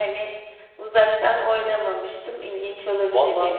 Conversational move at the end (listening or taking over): taking over